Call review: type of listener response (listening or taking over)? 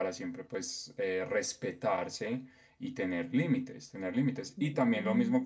listening